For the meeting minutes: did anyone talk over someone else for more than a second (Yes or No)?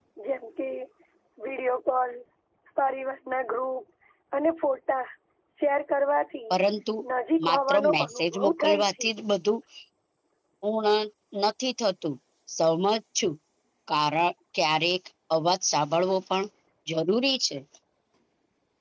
Yes